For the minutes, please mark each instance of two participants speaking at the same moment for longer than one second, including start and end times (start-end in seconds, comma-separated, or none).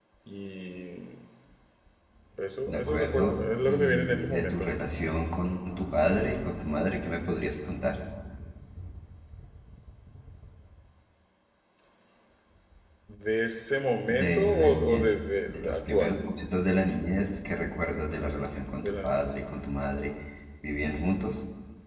2.6-4.7, 14.1-16.2